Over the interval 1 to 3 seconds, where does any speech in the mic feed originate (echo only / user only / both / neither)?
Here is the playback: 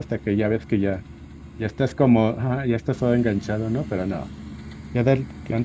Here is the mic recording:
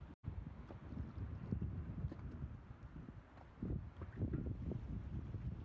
neither